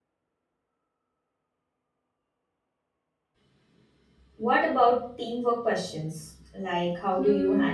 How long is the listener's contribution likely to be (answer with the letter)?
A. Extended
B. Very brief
A